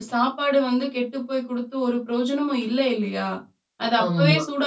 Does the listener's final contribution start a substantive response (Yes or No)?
No